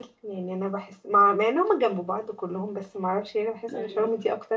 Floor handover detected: No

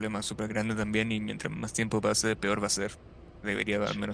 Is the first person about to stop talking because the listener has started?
No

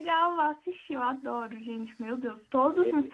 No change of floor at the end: Yes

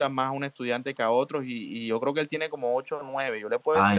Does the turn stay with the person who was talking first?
No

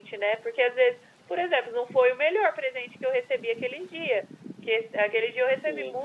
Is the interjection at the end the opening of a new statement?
No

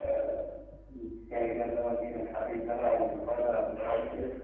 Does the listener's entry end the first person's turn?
No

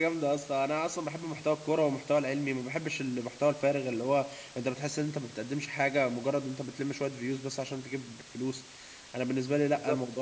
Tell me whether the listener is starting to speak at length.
Yes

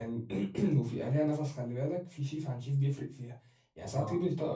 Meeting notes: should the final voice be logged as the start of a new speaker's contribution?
No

